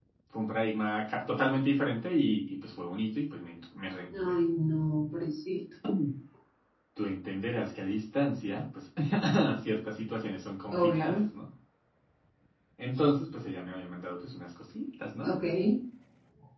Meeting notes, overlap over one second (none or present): none